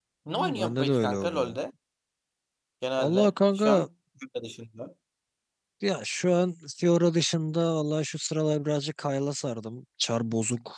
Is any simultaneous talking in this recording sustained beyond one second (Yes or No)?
Yes